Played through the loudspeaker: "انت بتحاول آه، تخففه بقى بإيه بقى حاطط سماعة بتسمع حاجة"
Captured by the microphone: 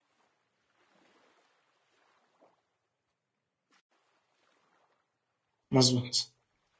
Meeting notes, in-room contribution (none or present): present